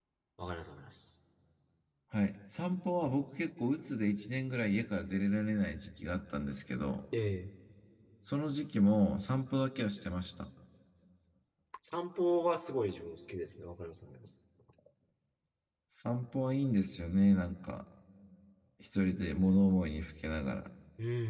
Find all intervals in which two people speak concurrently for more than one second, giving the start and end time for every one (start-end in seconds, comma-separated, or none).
none